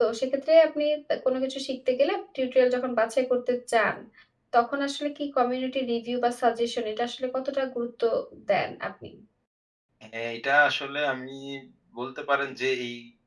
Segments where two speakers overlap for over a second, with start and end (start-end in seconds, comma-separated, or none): none